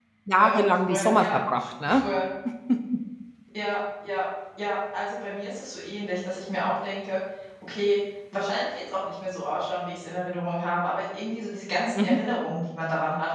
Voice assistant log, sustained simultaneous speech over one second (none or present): present